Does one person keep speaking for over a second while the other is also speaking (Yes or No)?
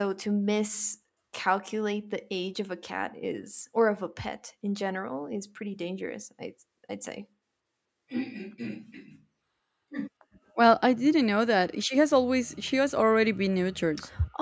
No